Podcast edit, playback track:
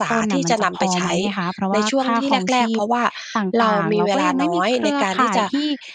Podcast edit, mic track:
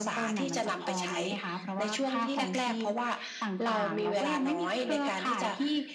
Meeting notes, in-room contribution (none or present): none